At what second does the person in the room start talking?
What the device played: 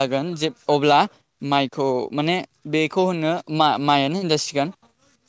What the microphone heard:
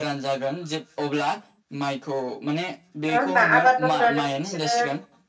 3.1 s

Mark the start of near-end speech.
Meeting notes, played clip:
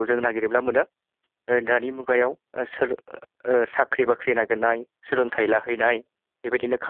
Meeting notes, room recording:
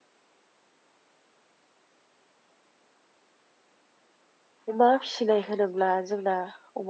4.7 s

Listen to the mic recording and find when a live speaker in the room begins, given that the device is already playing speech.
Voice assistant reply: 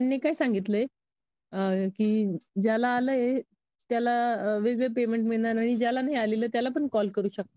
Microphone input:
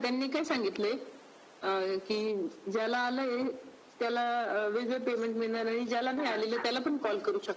6.2 s

